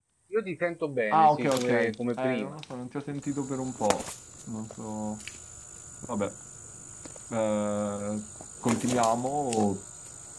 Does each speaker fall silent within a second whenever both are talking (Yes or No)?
No